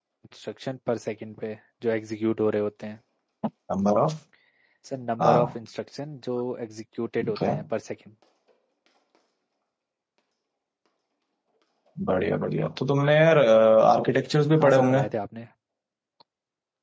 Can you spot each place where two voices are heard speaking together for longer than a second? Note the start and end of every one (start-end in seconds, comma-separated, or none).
none